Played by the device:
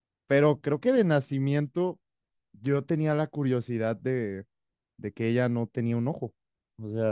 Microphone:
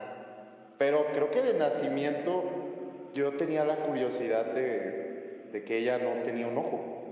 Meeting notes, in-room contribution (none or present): none